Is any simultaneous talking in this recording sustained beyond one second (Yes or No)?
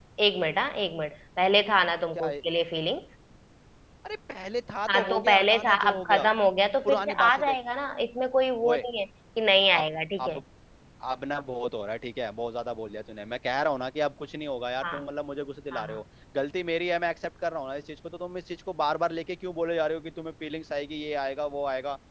Yes